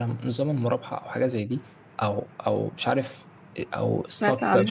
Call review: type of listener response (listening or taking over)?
listening